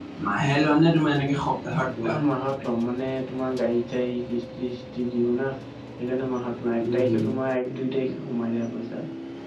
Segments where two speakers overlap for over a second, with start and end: none

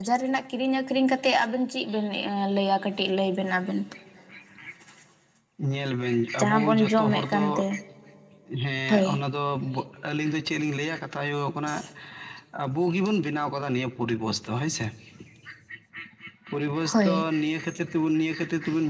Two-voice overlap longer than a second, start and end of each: 6.4-7.6

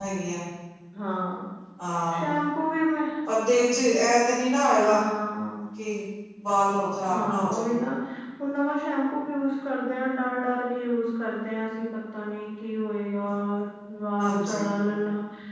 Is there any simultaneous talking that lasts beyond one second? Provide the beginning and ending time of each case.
none

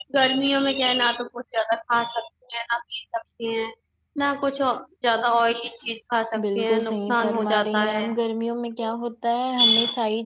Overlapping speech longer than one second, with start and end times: 6.4-8.1

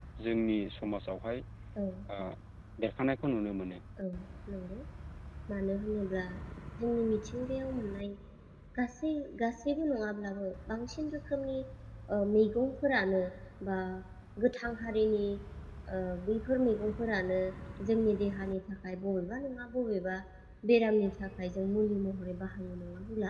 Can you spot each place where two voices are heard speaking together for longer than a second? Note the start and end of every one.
none

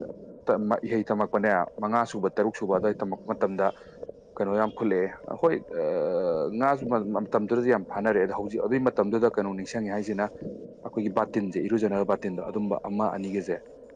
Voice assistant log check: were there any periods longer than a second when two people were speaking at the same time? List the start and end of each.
none

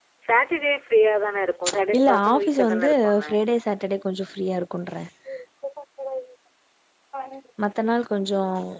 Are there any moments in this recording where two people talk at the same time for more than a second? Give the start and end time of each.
2.0-3.2

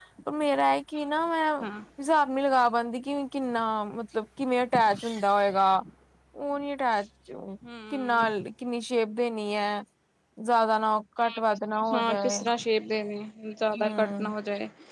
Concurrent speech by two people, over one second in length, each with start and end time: none

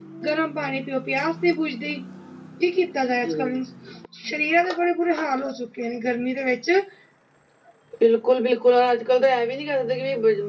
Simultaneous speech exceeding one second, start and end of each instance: none

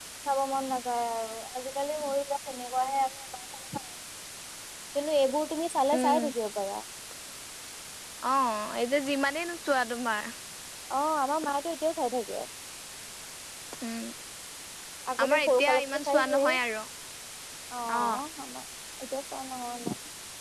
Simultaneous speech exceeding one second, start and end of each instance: 15.2-16.6

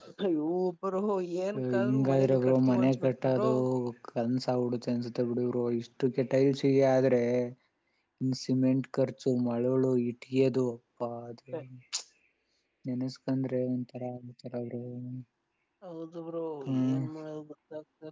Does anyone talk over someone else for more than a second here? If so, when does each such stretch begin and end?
1.8-3.5

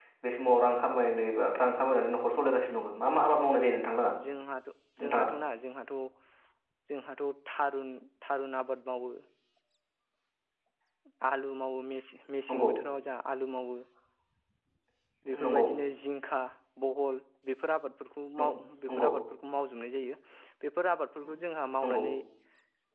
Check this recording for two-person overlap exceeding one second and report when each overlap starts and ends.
none

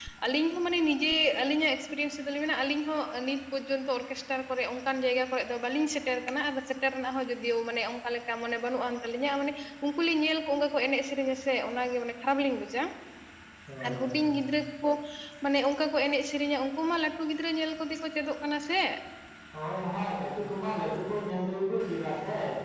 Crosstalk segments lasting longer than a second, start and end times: none

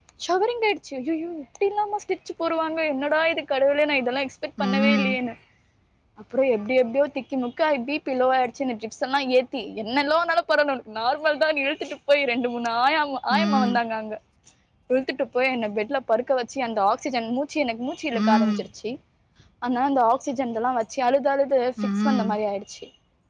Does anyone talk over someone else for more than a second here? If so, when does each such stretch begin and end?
none

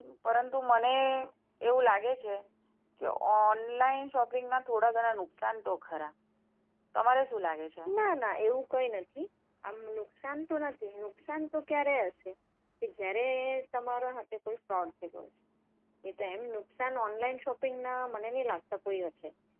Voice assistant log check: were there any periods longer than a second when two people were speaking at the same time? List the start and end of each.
none

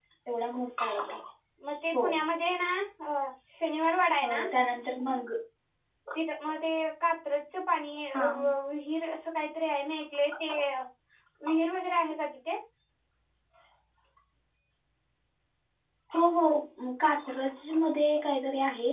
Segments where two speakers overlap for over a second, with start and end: none

